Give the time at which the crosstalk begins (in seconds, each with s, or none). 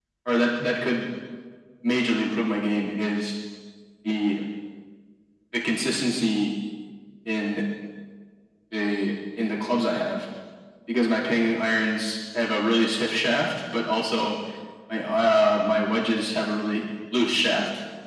none